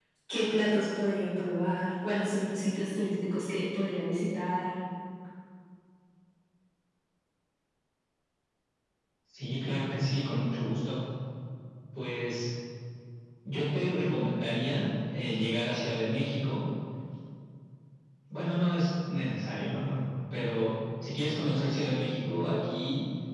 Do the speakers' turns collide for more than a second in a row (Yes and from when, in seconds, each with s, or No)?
No